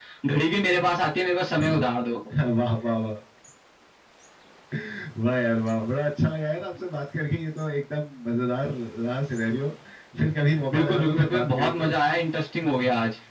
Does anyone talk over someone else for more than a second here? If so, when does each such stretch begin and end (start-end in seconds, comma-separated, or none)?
10.7-11.9